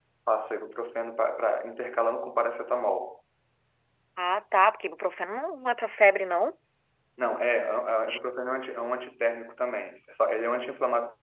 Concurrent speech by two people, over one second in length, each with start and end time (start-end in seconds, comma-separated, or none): none